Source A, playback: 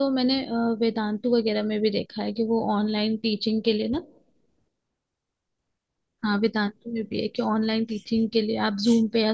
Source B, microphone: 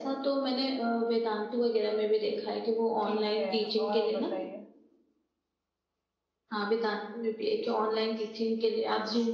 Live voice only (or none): ठीक है और आप बताइए?